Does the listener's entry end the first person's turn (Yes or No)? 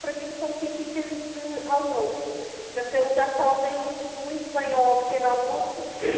Yes